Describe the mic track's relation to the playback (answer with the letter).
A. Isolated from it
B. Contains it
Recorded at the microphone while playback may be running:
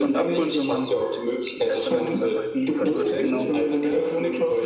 B